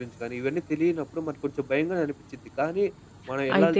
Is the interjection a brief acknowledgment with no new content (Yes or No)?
No